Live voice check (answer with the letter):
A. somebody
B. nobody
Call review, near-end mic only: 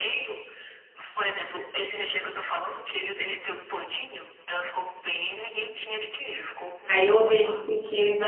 A